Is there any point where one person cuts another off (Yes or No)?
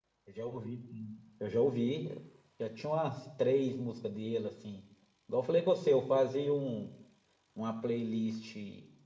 No